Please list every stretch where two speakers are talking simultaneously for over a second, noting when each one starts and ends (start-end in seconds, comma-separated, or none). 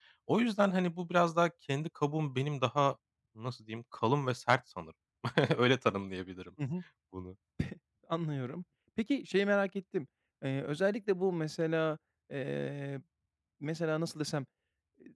none